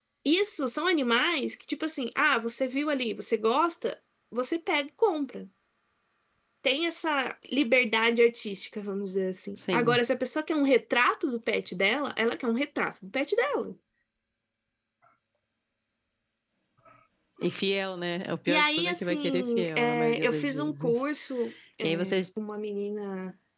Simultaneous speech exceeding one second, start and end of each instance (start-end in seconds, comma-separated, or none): 18.5-21.0